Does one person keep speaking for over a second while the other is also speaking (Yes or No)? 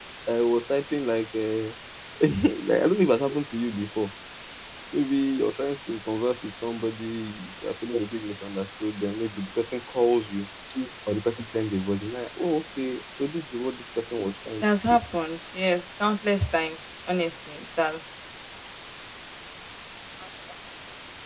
No